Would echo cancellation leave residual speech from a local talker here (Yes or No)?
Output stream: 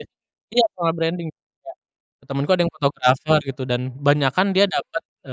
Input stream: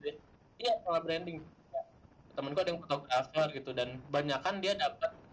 No